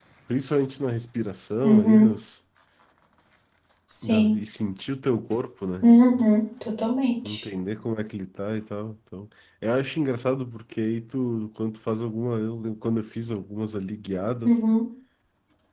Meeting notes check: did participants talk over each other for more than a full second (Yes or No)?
No